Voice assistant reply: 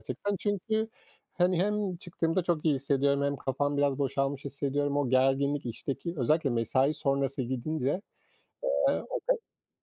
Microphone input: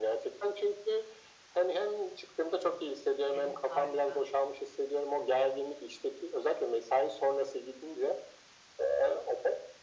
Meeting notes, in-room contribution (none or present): present